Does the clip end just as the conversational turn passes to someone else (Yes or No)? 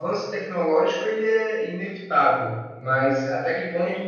No